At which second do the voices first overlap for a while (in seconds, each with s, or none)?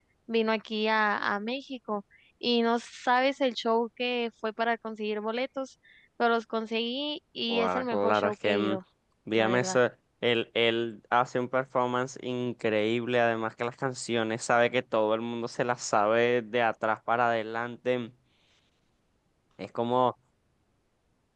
7.5 s